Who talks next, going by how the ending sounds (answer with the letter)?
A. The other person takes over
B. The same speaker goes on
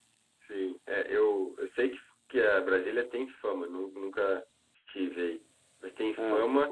B